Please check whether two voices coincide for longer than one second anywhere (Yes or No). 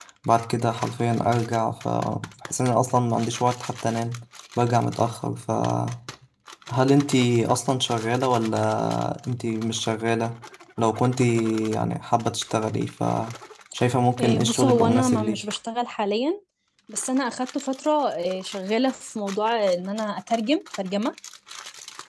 Yes